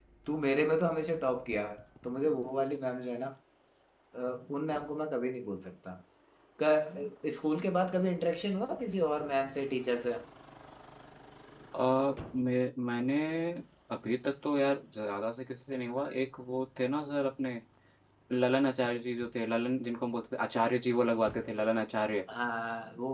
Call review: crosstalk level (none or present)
none